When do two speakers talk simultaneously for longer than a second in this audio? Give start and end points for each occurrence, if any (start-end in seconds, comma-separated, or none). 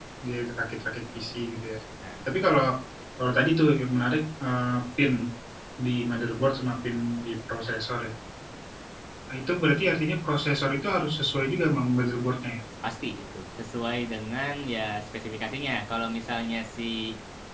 none